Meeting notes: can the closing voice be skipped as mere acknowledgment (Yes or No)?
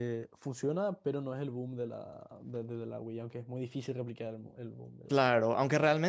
No